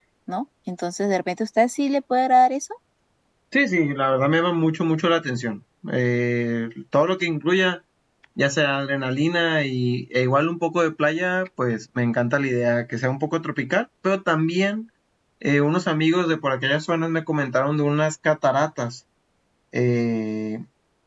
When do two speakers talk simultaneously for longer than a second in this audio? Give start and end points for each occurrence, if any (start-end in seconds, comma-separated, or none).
none